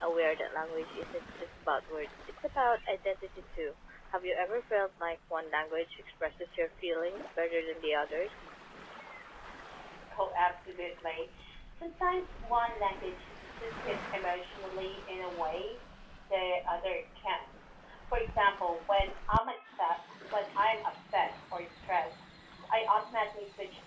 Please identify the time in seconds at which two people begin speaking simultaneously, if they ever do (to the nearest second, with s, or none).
none